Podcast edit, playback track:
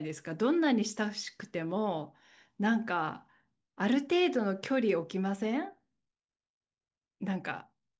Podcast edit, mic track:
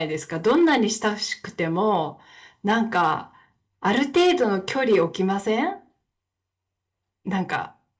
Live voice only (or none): none